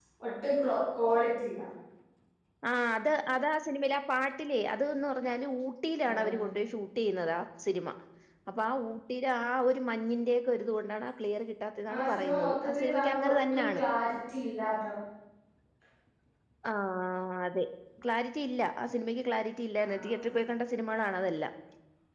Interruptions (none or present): present